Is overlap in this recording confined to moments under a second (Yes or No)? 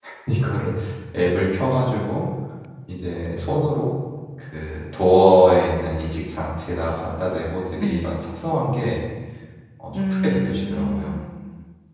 No